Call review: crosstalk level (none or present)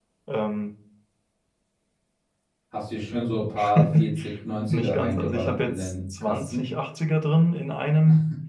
present